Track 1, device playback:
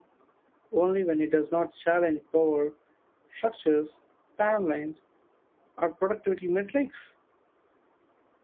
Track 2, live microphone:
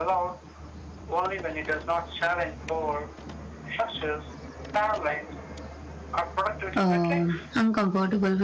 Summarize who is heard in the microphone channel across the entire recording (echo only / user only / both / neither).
both